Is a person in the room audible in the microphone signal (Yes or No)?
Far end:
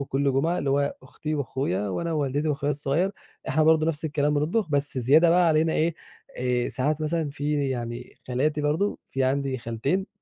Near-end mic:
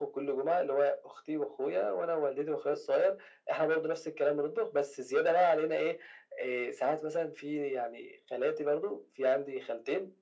No